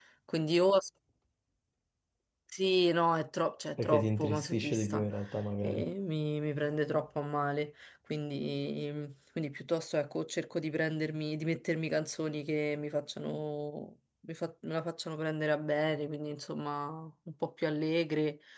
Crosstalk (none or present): present